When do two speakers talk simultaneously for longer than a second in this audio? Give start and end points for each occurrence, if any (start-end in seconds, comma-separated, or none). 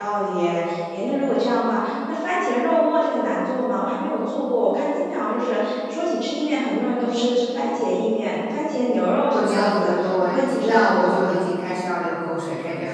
9.3-11.4